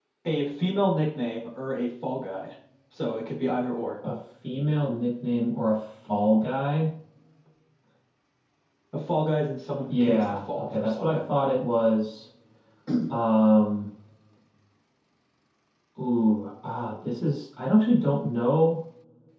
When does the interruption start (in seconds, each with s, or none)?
9.9 s